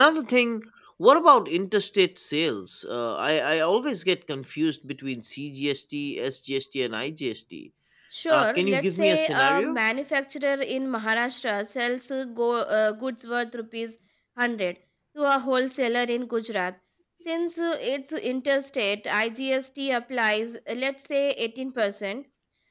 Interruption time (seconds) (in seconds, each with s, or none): 8.3 s